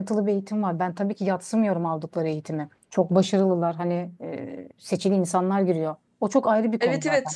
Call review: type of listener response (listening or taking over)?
listening